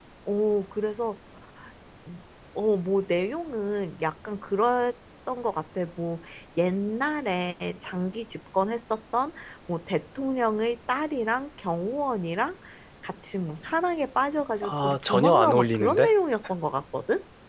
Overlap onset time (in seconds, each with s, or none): 14.6 s